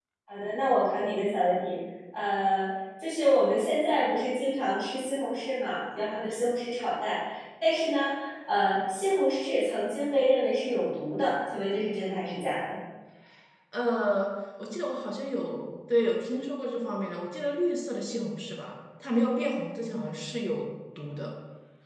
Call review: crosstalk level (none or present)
none